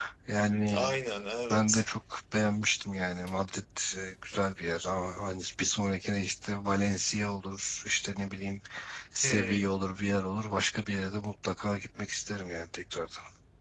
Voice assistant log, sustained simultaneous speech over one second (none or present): none